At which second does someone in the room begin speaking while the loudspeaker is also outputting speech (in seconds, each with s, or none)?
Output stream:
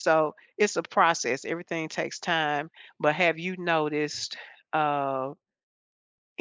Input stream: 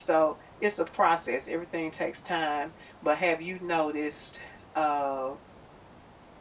none